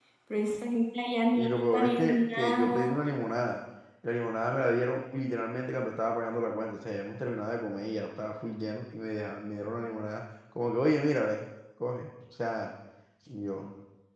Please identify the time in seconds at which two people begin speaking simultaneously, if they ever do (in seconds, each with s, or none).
1.4 s